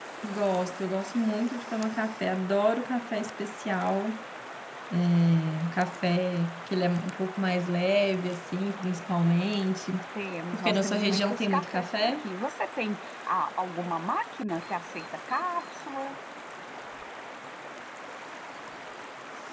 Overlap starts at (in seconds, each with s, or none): 10.5 s